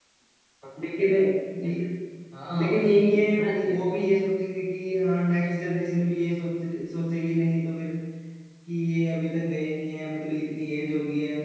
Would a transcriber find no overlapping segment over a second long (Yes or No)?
No